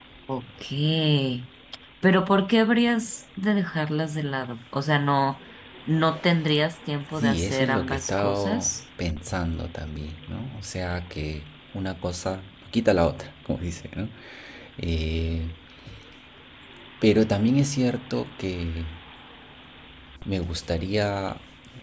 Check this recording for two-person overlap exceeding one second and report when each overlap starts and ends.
7.2-8.8

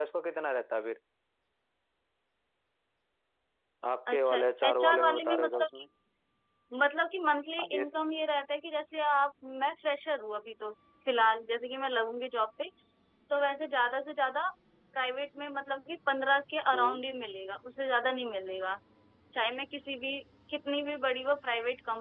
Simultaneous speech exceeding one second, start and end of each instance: 4.1-5.7

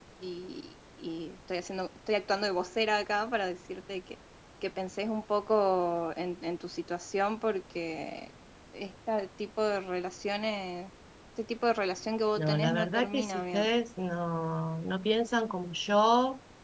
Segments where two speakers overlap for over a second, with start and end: 12.4-13.7

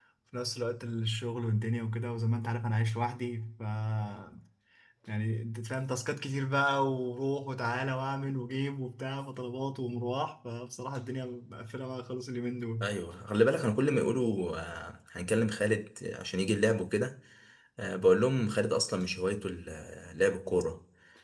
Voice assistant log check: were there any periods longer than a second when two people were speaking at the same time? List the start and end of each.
none

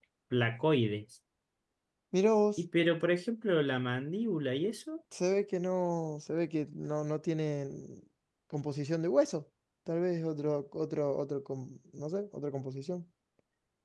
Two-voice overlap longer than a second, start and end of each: none

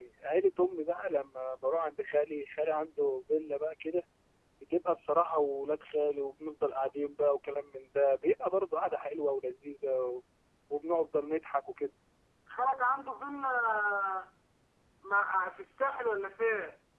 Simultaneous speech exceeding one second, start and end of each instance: none

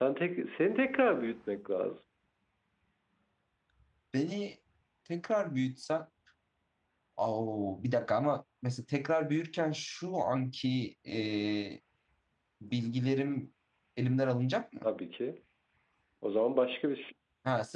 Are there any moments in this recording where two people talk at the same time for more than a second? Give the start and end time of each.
none

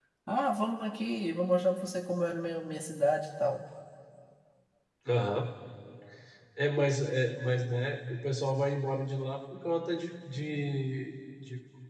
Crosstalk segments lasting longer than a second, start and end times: none

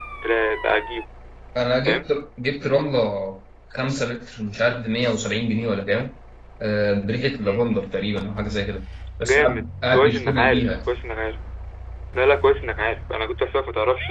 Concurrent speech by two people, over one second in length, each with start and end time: 9.2-10.9

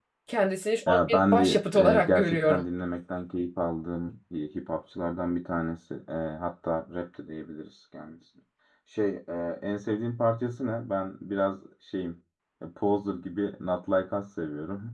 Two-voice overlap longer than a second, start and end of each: 0.9-2.6

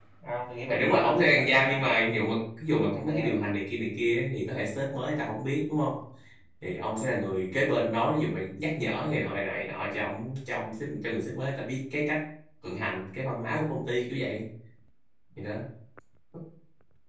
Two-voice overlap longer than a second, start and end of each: 0.7-2.2

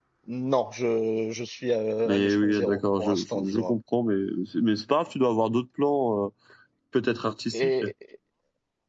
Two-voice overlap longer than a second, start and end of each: 2.0-3.8

